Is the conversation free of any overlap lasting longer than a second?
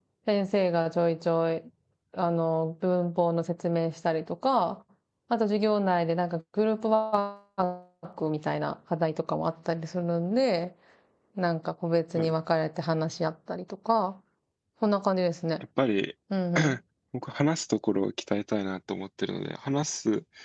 Yes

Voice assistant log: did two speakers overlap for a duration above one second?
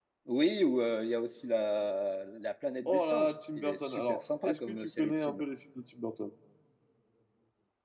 Yes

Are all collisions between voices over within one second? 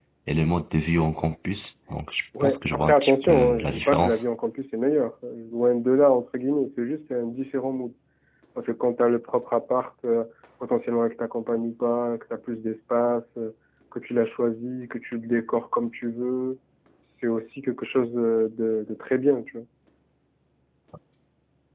No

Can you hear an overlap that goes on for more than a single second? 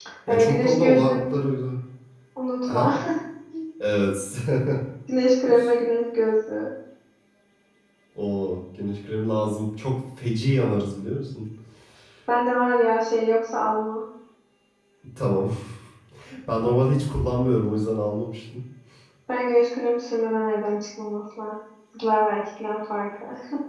Yes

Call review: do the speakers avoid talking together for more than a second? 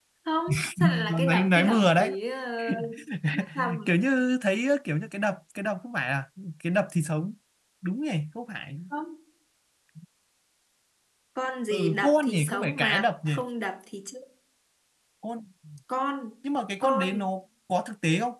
No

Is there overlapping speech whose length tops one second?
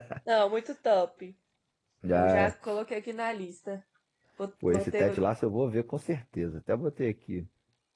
No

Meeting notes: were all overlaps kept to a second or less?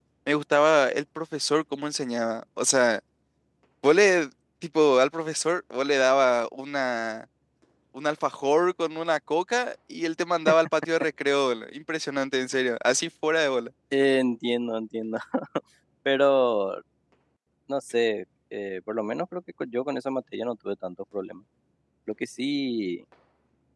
Yes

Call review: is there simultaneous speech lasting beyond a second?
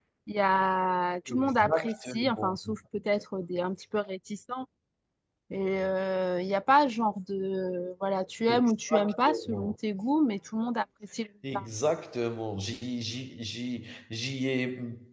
Yes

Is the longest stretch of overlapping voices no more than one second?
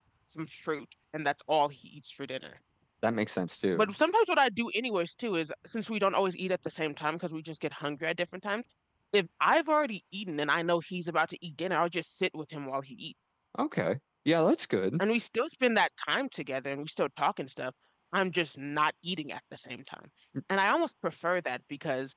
Yes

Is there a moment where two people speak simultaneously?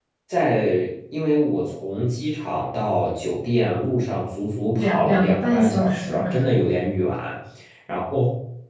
Yes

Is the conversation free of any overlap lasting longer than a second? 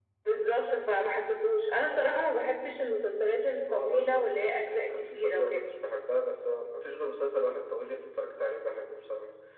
No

